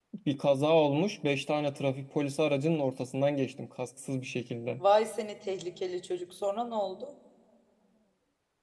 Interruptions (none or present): none